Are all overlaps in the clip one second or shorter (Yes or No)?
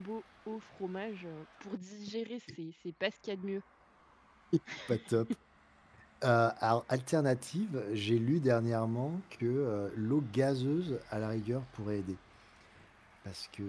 Yes